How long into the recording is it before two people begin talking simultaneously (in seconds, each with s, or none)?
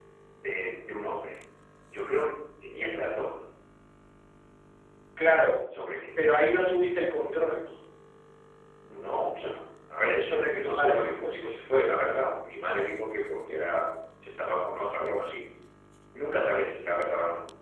10.2 s